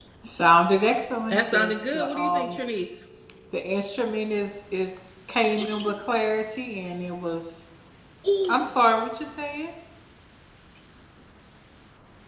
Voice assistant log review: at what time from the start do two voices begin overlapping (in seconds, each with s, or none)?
1.3 s